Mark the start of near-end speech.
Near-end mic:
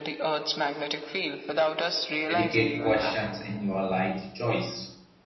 2.3 s

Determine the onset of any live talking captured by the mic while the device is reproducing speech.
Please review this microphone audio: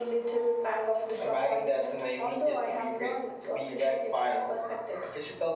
none

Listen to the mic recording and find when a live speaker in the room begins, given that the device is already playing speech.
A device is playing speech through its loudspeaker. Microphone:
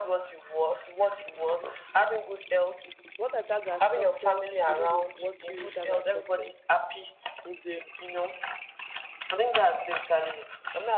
3.1 s

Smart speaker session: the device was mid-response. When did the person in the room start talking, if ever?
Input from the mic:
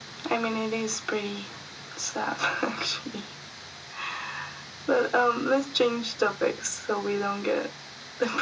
none

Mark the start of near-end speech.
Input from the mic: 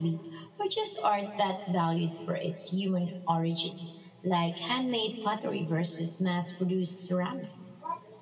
none

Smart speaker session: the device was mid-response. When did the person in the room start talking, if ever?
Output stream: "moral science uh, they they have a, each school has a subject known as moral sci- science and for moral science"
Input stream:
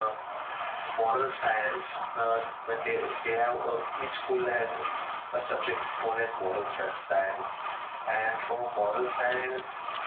none

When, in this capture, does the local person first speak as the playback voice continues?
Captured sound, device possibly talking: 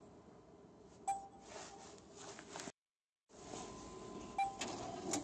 none

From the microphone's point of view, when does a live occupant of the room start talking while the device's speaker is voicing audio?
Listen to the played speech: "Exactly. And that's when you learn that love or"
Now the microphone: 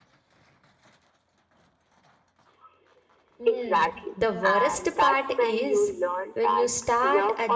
3.4 s

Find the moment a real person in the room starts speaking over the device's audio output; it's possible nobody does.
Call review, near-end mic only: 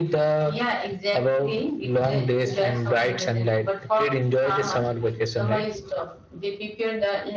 none

